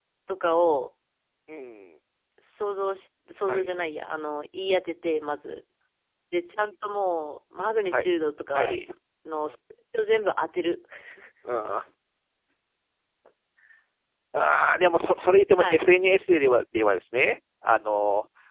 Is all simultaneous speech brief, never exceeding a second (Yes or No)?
Yes